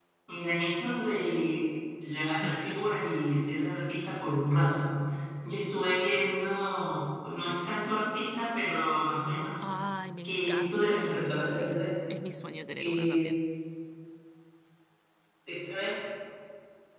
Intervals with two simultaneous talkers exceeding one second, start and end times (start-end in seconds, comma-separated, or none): 10.2-11.9